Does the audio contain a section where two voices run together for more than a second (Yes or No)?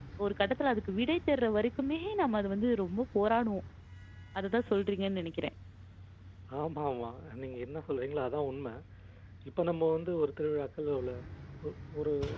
No